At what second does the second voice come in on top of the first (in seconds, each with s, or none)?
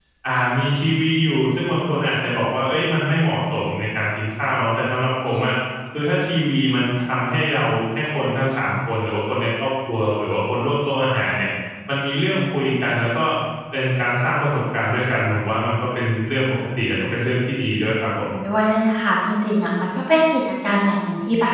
none